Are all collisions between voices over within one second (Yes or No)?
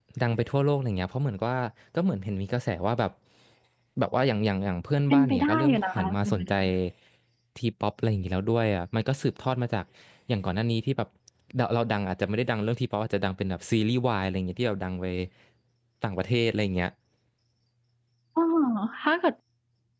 No